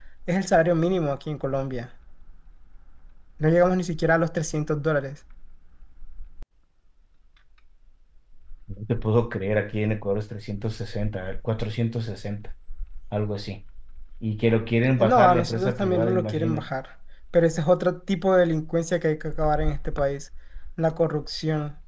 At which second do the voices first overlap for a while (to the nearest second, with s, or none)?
15 s